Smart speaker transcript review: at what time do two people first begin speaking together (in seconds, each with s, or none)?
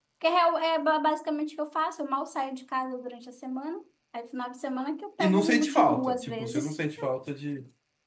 5.2 s